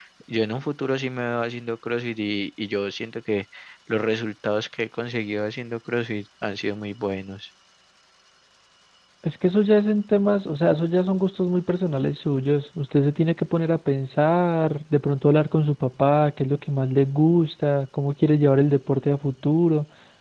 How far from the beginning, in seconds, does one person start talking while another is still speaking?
none

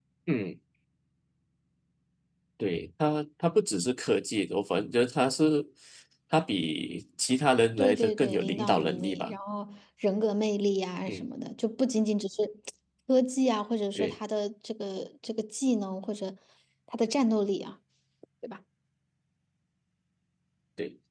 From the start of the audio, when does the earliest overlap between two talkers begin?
7.8 s

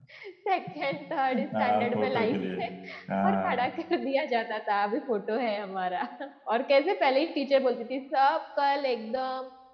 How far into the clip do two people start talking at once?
1.3 s

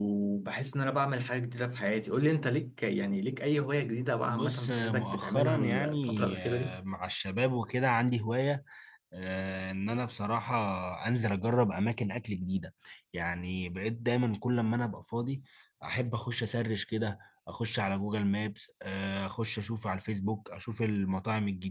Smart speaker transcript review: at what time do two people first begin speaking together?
4.3 s

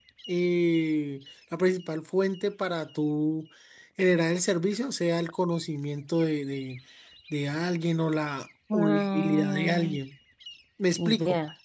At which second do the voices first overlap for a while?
8.7 s

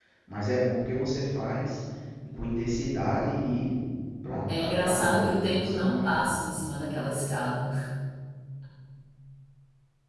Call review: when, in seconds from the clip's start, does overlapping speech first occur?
4.5 s

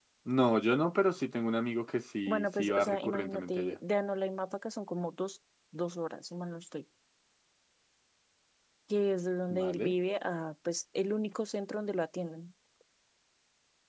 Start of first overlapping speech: 2.3 s

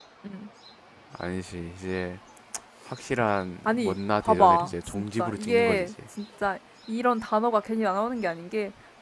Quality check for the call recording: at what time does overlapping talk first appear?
3.6 s

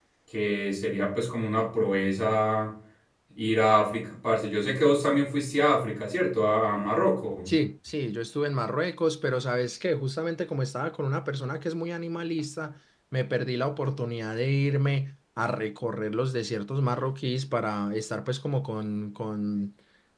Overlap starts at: none

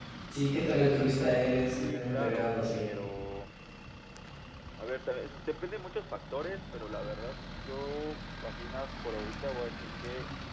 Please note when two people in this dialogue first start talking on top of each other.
1.7 s

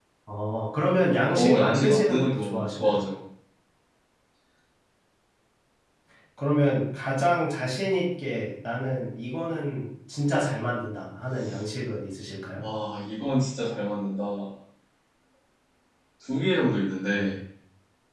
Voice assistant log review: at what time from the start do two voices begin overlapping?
1.3 s

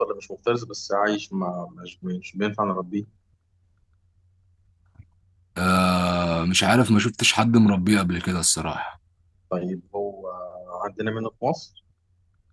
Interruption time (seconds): none

